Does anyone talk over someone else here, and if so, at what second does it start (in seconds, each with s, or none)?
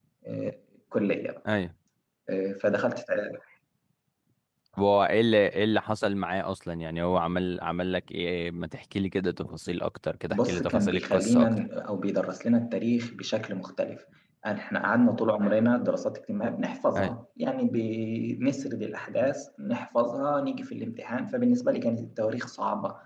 10.3 s